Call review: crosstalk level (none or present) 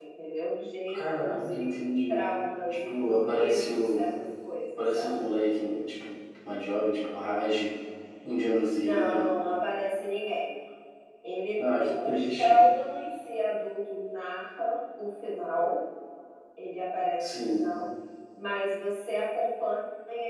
present